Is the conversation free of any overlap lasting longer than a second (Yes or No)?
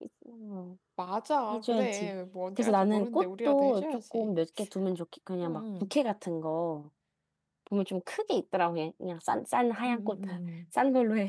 No